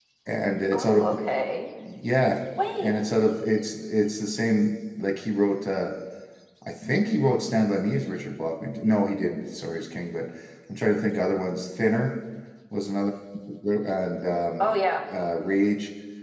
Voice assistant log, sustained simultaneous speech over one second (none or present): none